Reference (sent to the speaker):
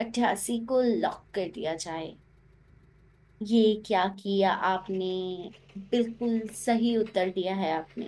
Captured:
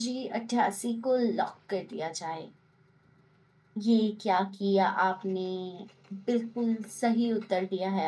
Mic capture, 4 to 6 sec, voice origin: echo only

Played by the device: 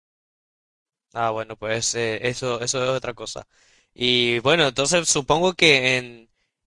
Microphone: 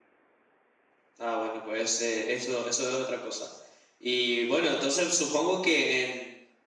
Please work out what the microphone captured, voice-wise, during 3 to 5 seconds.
echo only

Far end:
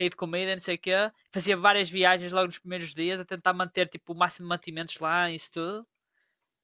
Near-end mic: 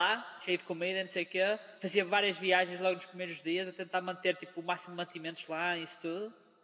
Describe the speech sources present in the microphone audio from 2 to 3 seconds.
echo only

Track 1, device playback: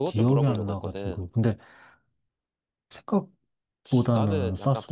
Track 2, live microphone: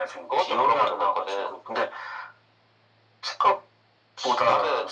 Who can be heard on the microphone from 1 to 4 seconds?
echo only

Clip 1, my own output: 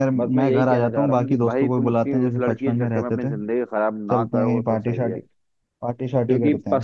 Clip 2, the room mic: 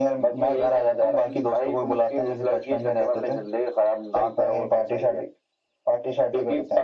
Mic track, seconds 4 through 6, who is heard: echo only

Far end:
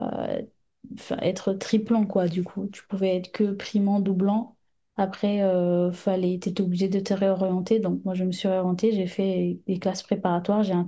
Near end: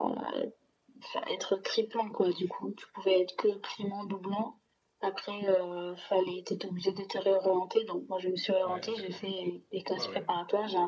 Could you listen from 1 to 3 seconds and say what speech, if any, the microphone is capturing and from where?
echo only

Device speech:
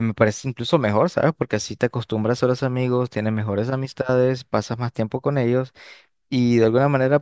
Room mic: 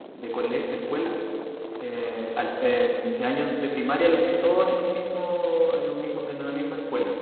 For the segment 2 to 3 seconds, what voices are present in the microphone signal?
user only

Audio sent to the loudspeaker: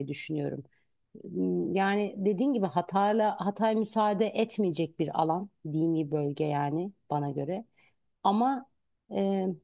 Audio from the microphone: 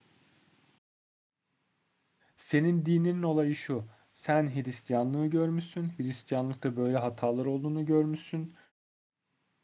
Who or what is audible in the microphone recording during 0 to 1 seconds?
neither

